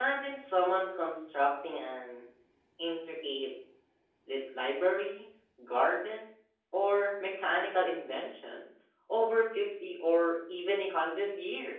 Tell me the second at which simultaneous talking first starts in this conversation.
none

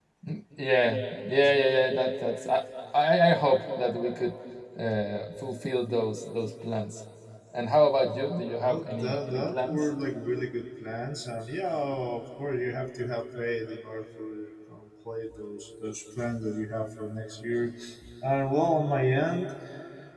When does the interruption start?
8.6 s

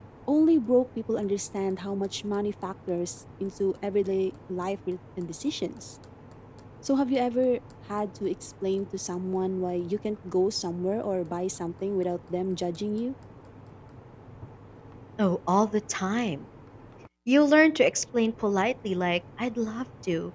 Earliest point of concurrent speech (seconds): none

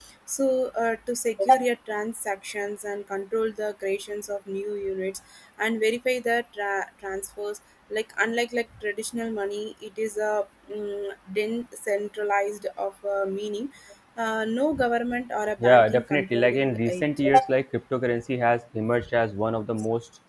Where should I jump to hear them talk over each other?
15.6 s

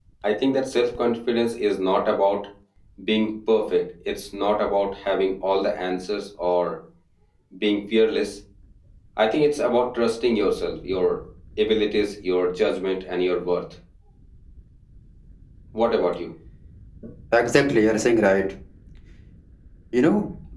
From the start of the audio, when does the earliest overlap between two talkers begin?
none

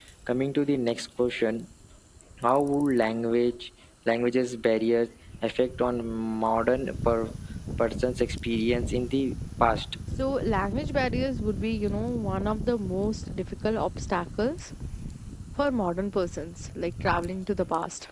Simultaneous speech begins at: none

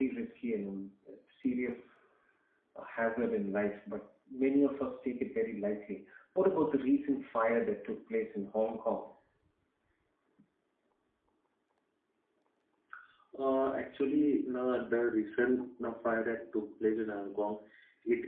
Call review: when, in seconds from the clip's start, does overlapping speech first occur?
none

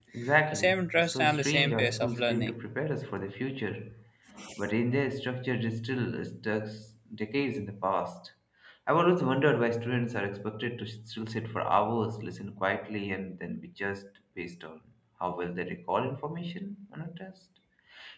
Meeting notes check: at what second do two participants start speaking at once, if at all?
0.5 s

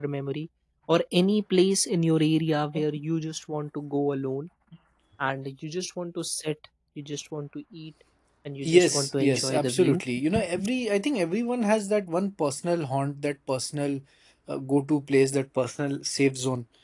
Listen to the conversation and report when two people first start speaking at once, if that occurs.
8.7 s

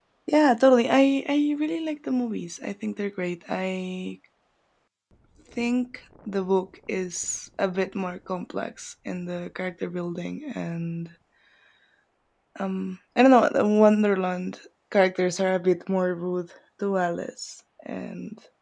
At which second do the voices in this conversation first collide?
none

